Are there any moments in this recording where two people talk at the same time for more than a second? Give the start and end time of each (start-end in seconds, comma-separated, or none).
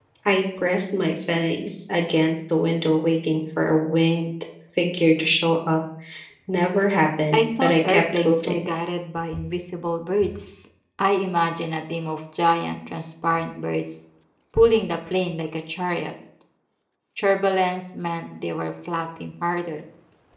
7.3-8.7